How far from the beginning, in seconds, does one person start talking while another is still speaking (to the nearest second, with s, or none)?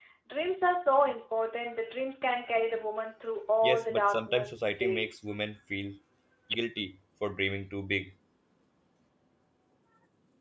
4 s